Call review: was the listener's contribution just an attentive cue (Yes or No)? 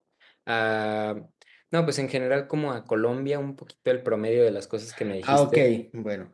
No